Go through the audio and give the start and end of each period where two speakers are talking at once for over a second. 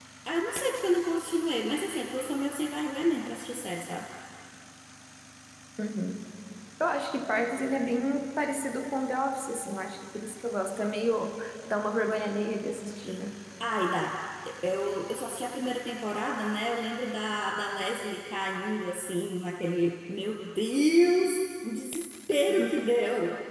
none

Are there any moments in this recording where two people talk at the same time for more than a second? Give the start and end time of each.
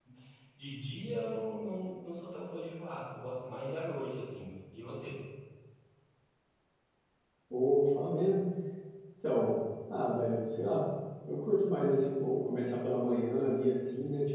none

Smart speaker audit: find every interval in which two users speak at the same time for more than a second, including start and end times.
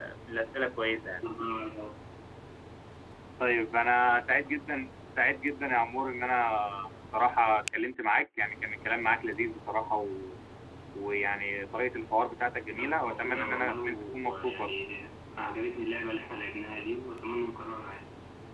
12.7-14.7

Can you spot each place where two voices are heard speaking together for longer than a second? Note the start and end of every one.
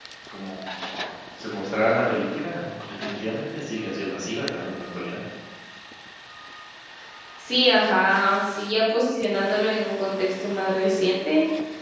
none

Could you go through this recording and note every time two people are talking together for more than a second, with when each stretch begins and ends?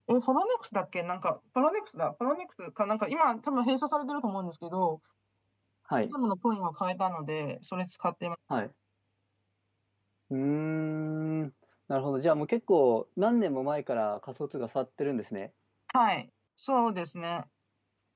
none

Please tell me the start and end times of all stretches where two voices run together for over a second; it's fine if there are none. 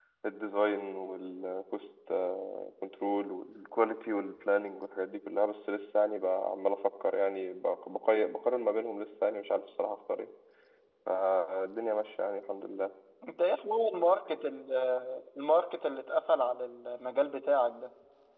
none

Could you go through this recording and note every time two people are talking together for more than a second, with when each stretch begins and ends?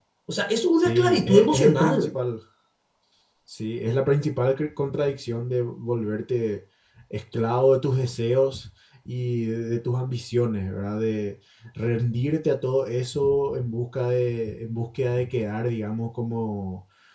0.8-2.1

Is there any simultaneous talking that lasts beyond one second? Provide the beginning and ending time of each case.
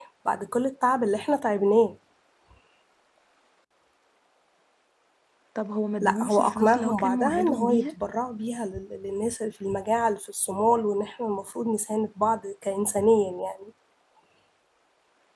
6.0-7.9

